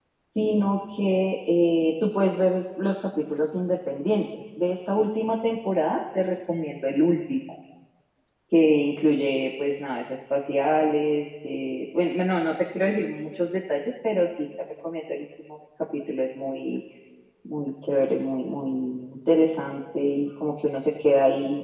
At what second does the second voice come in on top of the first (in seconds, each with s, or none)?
none